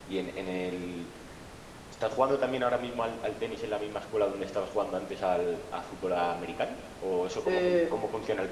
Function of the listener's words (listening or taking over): listening